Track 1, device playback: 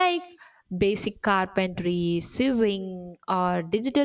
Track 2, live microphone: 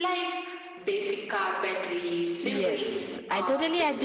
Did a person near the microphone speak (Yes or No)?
Yes